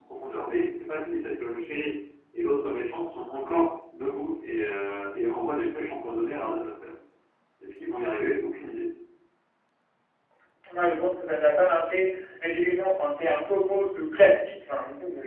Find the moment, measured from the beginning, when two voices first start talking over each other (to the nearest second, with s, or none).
none